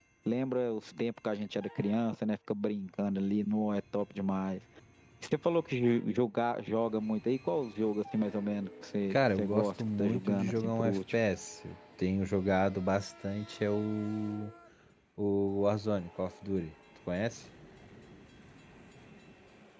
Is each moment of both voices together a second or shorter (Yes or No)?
No